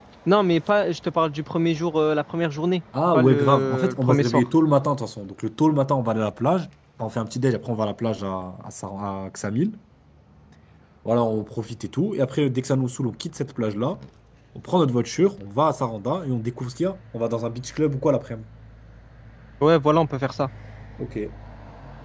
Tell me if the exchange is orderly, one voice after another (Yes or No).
No